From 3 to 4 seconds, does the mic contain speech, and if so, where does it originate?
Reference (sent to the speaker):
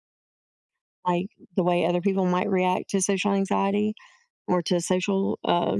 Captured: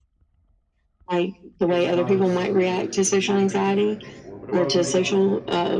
both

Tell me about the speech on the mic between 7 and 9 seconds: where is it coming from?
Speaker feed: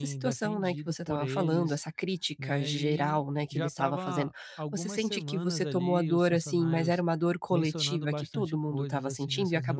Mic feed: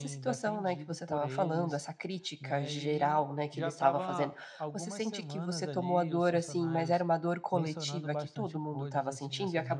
echo only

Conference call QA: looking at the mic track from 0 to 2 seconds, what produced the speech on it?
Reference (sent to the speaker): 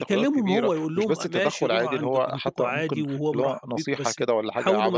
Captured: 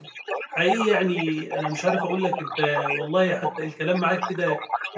both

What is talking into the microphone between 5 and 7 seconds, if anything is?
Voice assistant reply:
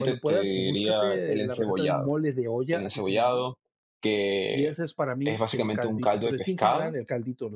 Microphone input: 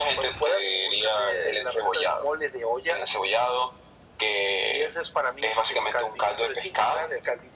echo only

